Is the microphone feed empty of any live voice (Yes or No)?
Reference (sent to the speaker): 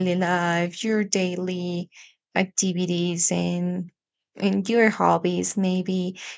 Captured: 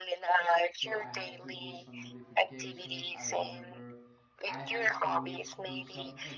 No